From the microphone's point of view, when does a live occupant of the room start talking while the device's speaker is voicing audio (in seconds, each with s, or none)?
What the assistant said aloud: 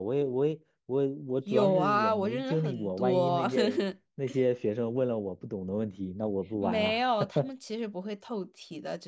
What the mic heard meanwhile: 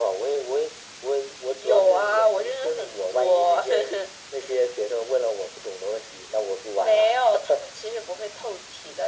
none